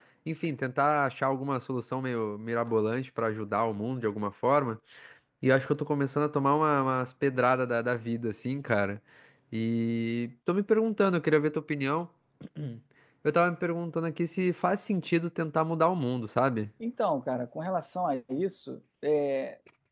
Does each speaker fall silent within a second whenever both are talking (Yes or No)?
Yes